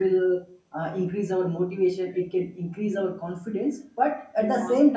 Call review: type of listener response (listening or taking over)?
listening